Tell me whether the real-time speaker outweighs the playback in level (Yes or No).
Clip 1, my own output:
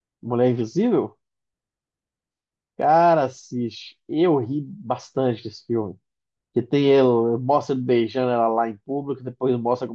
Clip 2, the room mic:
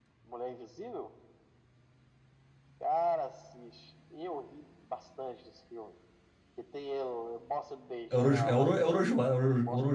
Yes